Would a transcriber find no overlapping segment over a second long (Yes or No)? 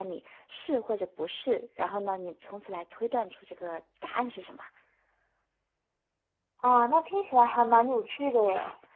Yes